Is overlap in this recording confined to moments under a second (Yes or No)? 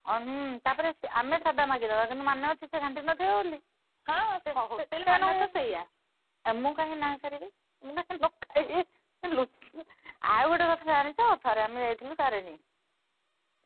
Yes